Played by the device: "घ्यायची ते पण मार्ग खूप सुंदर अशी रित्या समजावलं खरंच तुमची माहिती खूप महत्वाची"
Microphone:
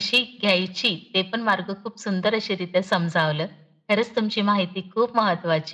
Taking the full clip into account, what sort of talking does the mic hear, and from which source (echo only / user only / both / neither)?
echo only